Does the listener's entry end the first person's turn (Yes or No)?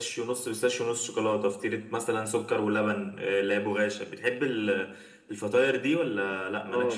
Yes